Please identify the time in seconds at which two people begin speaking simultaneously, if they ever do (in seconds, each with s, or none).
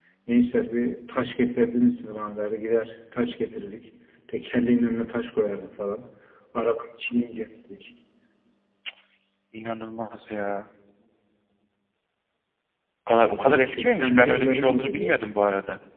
13.2 s